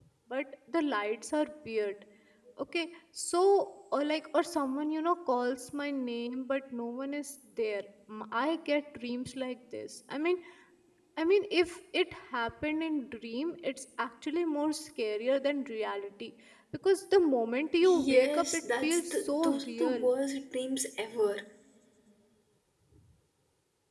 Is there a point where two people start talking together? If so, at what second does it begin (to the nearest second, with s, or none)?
18 s